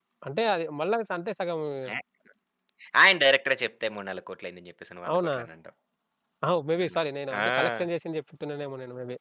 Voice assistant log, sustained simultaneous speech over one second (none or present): none